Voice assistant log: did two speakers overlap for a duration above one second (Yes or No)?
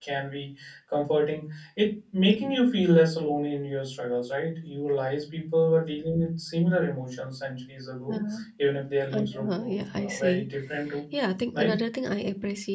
Yes